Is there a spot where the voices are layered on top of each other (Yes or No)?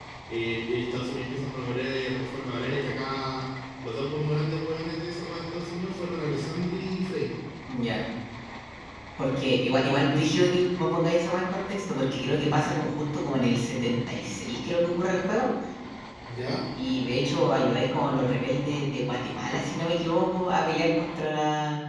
No